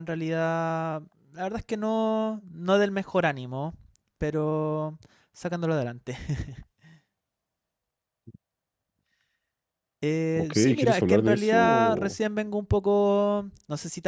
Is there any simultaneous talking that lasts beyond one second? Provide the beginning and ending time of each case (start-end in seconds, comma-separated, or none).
10.4-12.2